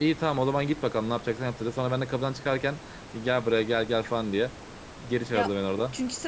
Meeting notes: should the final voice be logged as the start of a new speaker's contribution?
Yes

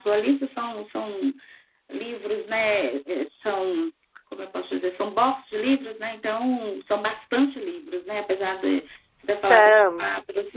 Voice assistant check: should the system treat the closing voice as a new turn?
No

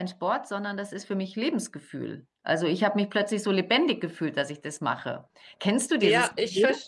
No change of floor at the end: No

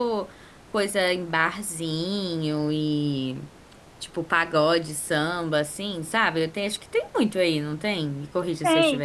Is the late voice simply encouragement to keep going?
No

